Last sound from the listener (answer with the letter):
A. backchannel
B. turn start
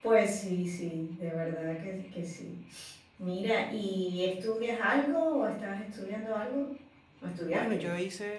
B